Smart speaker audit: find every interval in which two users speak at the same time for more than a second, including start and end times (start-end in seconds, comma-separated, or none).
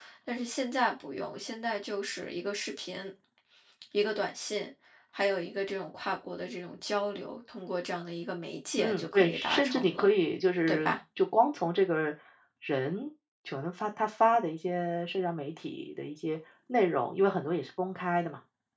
8.8-10.1